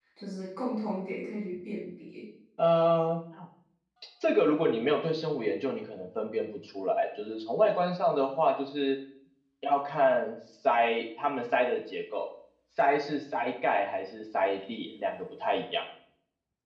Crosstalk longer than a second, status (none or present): none